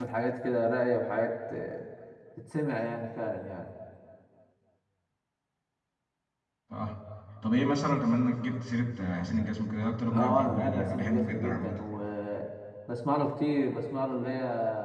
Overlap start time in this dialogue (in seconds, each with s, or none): 10.0 s